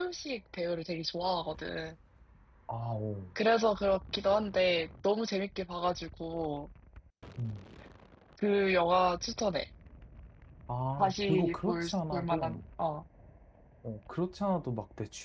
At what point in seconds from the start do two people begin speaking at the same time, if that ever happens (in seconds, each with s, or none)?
11.0 s